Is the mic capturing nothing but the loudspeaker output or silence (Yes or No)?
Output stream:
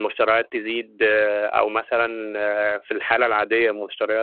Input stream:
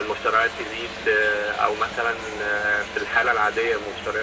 Yes